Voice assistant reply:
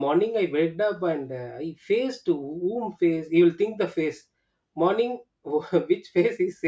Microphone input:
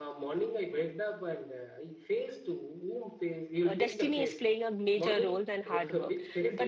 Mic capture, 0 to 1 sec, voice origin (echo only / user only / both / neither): echo only